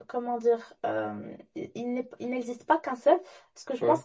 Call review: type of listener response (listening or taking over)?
listening